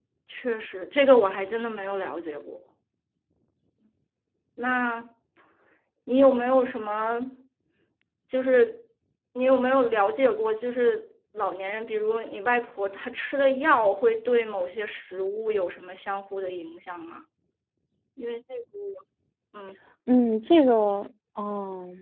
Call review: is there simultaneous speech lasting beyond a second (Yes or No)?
No